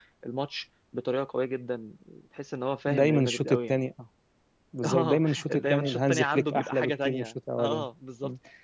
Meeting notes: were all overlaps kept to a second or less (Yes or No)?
No